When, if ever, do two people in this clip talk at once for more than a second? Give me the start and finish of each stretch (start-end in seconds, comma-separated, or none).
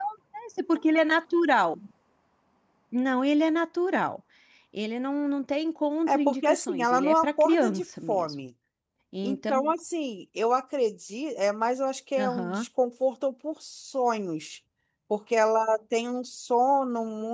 6.1-8.3